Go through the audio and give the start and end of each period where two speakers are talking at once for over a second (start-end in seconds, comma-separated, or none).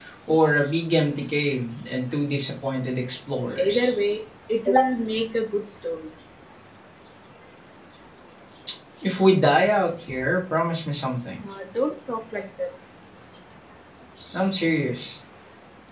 none